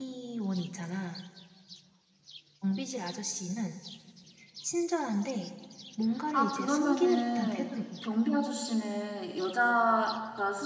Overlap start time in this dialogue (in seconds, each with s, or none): 6.3 s